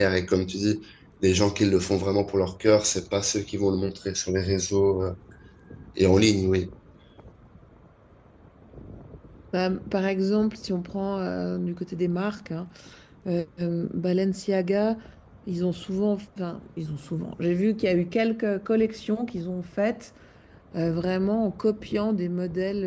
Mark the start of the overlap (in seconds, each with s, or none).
none